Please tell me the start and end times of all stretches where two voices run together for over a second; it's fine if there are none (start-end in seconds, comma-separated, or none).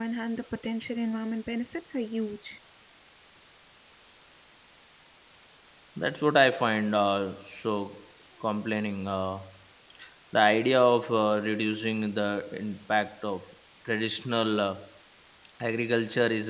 none